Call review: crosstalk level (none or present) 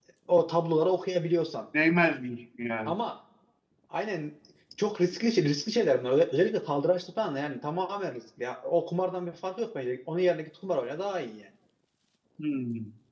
none